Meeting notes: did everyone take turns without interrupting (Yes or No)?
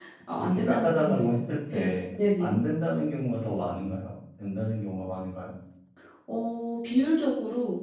No